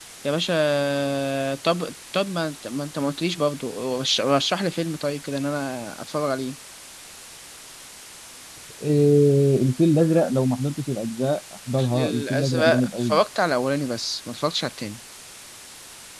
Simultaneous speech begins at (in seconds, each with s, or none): 11.7 s